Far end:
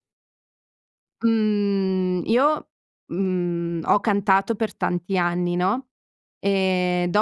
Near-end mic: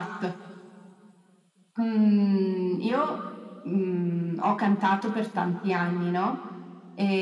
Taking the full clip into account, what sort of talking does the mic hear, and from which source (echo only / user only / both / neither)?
echo only